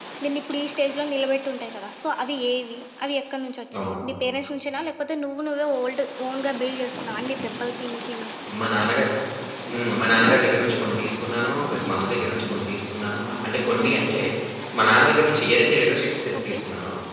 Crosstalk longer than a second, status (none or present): none